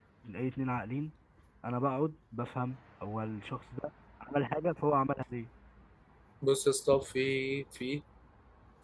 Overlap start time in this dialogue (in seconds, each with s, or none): none